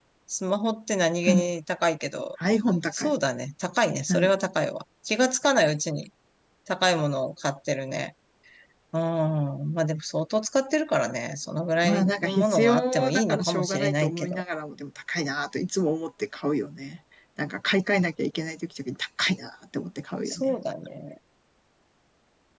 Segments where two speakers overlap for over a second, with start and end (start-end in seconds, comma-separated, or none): 11.8-14.4